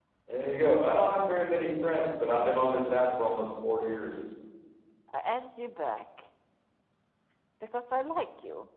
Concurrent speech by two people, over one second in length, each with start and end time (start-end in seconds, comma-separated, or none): none